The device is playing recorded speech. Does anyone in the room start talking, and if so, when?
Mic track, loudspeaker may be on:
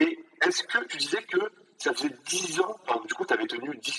none

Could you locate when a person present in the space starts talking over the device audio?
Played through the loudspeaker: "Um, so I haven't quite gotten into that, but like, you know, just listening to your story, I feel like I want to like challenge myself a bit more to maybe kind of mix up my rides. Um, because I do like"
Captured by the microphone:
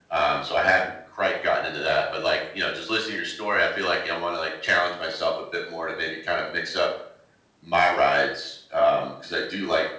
none

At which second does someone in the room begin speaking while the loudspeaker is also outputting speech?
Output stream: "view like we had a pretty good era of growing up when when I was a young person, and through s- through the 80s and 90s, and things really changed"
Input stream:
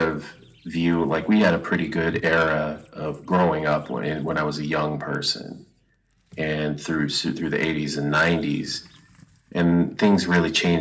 none

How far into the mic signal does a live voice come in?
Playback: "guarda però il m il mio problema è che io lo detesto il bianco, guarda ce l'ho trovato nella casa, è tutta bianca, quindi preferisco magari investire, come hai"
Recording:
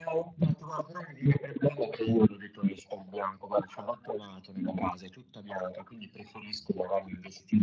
none

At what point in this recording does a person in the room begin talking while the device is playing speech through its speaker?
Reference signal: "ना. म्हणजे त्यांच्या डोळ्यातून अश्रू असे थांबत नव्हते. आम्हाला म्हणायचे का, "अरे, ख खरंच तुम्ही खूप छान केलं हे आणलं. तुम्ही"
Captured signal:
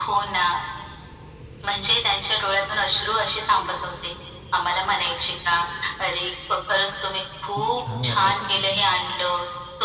8 s

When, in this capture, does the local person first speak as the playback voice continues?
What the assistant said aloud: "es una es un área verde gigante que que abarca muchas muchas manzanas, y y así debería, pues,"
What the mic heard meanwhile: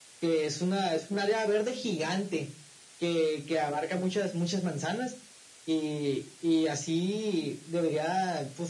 none

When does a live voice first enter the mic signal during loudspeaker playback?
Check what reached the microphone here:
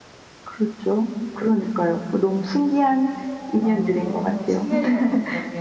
4 s

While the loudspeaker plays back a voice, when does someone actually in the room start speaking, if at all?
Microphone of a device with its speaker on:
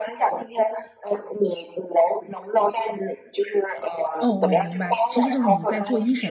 4 s

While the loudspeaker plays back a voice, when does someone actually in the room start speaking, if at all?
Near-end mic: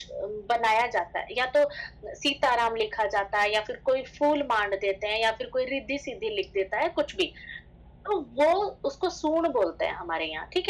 none

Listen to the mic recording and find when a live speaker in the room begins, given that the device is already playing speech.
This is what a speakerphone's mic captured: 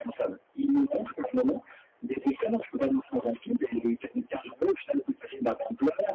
none

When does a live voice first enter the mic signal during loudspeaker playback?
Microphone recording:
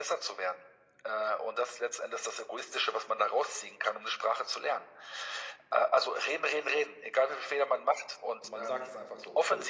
8 s

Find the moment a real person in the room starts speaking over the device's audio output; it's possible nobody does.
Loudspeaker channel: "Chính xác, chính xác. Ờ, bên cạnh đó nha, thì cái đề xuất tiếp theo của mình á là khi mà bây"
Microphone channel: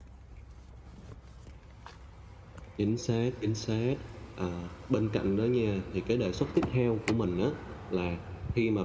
none

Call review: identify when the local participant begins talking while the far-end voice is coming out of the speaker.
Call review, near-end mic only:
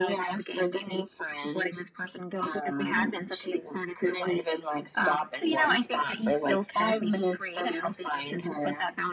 none

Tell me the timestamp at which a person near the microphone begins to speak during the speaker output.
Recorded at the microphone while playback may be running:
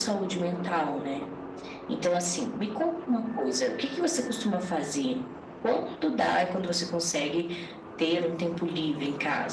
none

